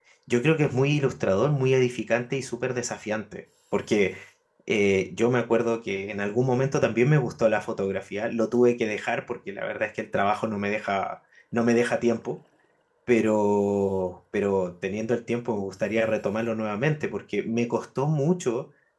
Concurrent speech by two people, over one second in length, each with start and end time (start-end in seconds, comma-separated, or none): none